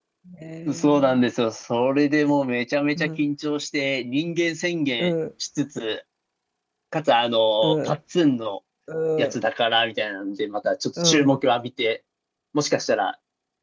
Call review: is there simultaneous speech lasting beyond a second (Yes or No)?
No